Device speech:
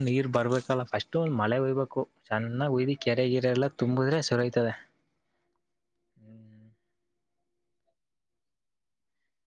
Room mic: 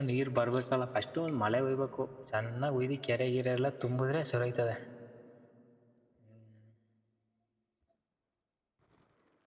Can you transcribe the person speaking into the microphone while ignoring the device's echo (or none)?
none